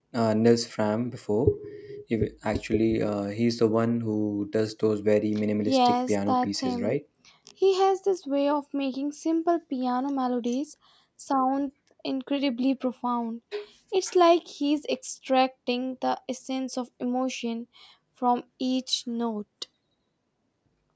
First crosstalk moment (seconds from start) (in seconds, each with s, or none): 5.7 s